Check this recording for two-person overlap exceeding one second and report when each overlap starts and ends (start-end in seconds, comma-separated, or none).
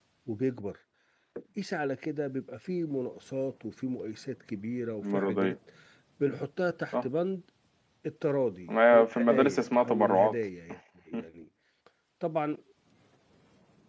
8.7-10.4